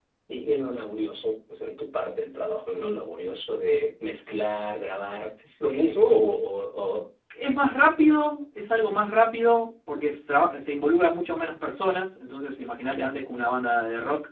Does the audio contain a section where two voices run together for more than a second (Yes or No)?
No